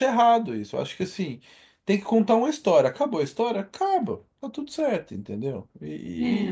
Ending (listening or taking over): listening